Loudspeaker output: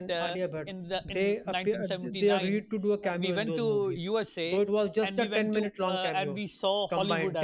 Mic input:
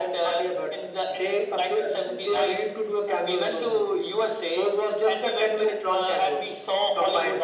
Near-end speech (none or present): none